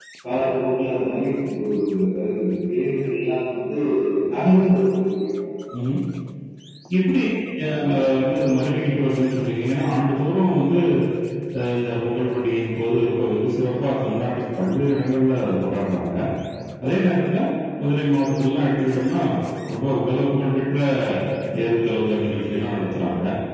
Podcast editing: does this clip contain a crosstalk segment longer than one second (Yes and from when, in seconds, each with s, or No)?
No